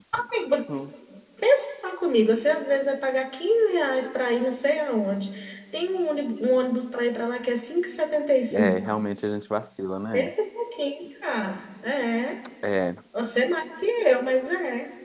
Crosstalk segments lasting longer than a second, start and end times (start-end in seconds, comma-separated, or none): none